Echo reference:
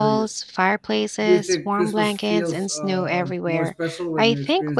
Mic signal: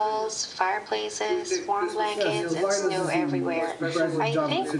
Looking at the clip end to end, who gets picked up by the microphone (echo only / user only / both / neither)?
both